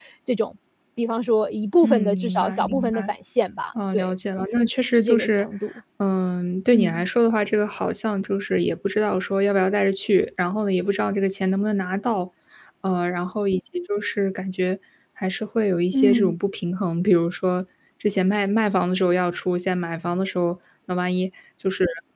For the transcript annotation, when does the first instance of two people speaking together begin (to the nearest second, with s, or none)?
2 s